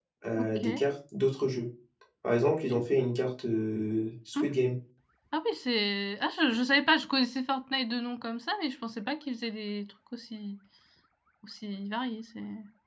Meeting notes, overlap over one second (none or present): none